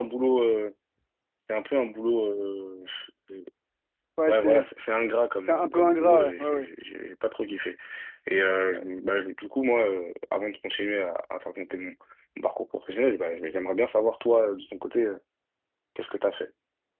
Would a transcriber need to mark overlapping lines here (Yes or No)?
Yes